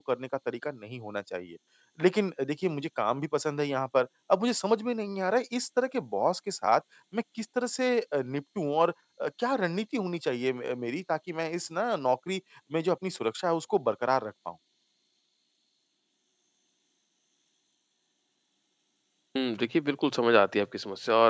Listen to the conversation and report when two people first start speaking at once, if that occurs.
none

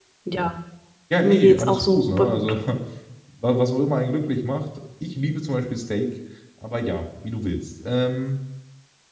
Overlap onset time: 1.2 s

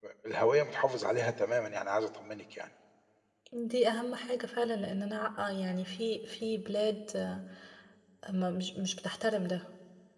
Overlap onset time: none

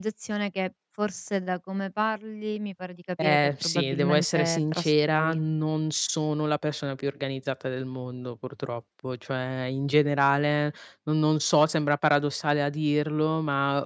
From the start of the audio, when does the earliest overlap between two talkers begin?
3.2 s

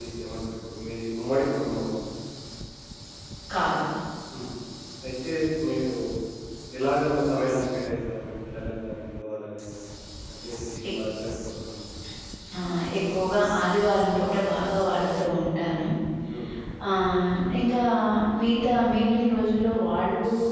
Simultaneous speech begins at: none

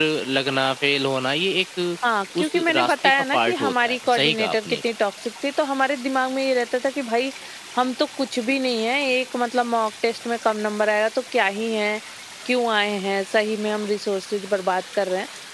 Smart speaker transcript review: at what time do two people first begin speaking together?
2.4 s

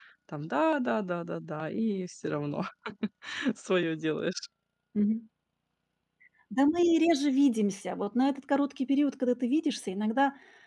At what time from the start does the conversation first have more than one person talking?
none

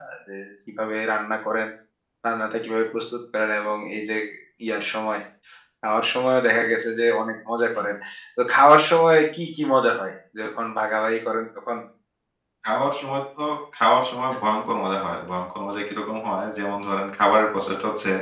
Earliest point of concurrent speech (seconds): none

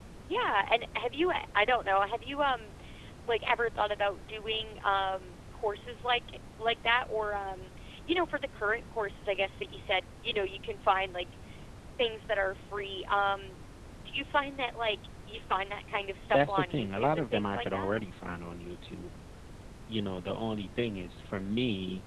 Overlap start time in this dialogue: 16.3 s

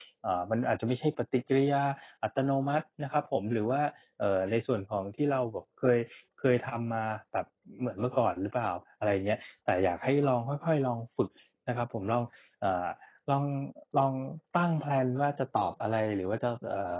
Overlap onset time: none

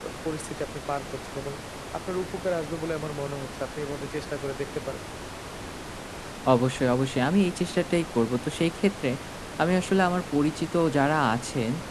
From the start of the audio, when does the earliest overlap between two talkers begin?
none

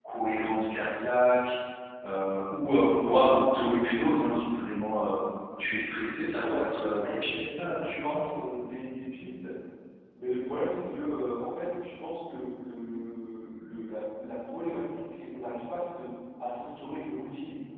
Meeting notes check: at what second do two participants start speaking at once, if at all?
6.3 s

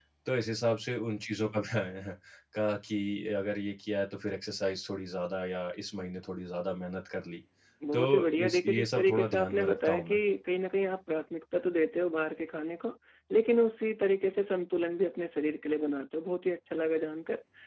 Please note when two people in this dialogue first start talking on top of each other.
7.9 s

